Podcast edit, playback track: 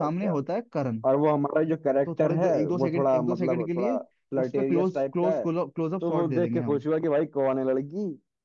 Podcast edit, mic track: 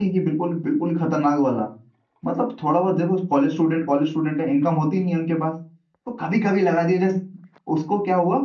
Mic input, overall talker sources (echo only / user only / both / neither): user only